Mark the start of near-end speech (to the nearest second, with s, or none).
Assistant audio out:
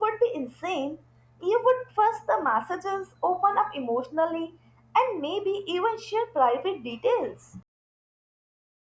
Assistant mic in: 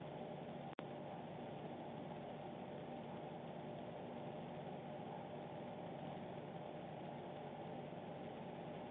none